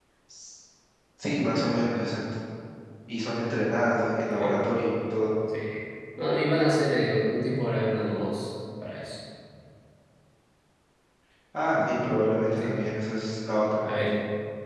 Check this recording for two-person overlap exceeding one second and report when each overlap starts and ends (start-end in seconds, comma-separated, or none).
none